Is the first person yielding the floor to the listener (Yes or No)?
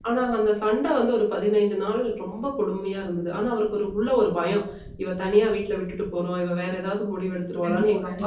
No